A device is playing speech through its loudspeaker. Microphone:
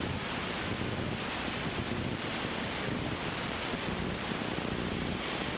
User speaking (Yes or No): No